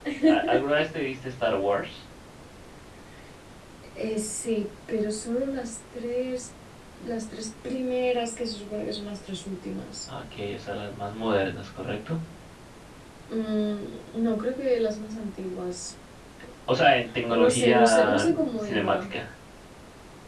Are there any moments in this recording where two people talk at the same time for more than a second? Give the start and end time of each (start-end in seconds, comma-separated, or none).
17.3-19.1